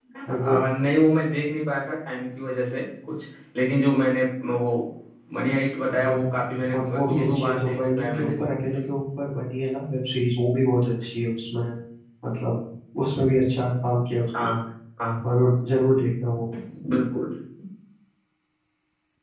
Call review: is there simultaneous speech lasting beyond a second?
Yes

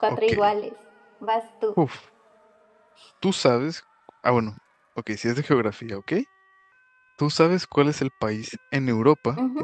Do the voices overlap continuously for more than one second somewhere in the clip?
No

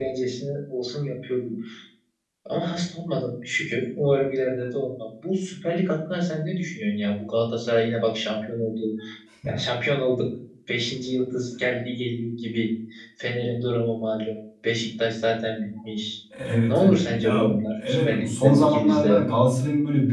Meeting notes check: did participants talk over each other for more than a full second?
Yes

